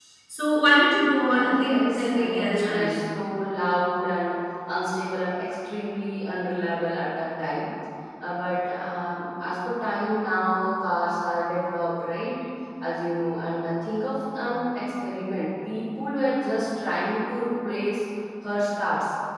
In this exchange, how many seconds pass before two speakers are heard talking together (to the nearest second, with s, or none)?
1 s